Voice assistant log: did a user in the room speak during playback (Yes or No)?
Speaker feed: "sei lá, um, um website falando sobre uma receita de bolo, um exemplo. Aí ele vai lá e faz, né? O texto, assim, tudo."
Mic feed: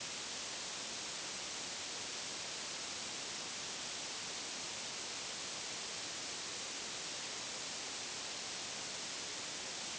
No